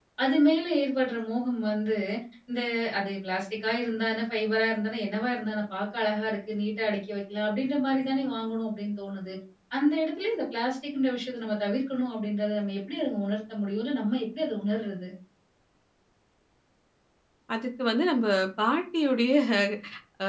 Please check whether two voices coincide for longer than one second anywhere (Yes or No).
No